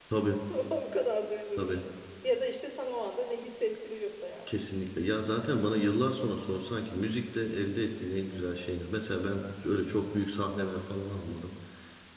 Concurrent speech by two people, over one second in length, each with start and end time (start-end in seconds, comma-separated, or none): none